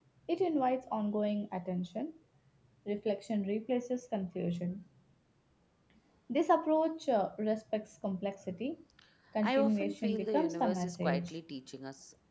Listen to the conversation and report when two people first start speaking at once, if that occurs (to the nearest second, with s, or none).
9 s